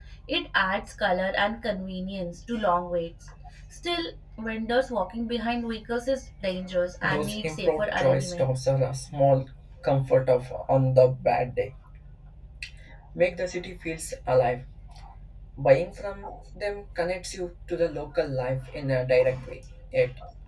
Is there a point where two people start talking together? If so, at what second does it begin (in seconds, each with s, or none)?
7.0 s